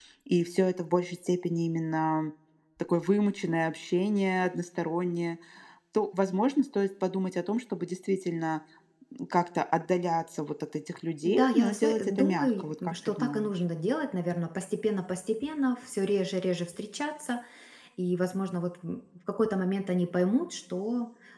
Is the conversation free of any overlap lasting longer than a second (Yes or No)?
No